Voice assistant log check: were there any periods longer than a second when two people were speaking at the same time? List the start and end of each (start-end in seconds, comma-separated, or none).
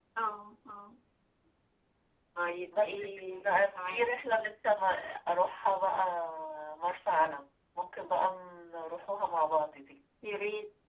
2.8-4.2